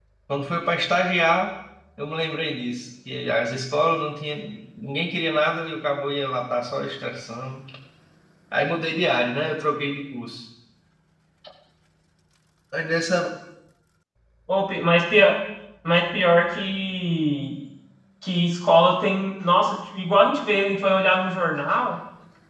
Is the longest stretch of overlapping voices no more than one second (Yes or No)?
Yes